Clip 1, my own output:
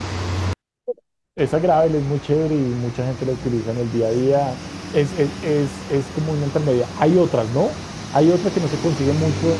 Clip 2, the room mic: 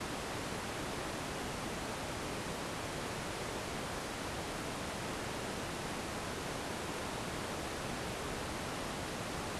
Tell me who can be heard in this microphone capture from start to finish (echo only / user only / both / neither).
neither